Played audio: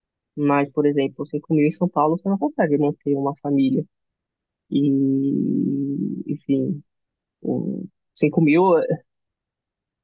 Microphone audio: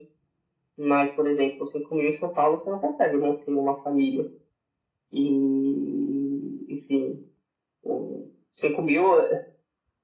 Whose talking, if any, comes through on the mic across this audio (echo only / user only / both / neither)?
echo only